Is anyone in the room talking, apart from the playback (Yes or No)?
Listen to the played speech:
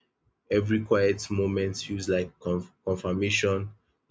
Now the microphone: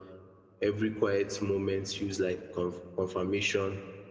No